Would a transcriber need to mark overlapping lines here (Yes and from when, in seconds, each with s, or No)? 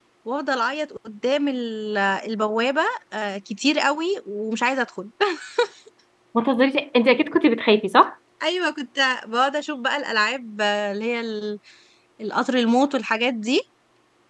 No